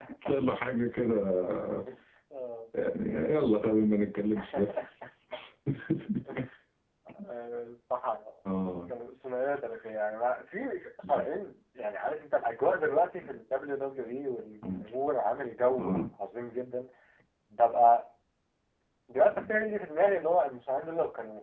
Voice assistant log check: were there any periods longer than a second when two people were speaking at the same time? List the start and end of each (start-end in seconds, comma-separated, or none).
none